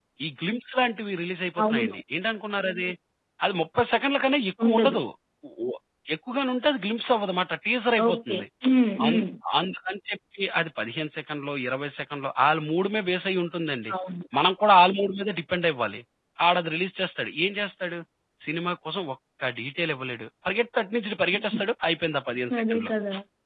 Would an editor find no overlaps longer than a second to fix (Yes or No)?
Yes